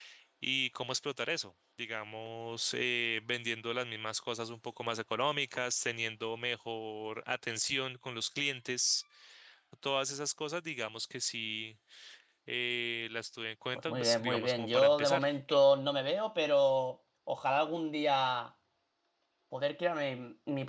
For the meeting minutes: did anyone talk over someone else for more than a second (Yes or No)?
Yes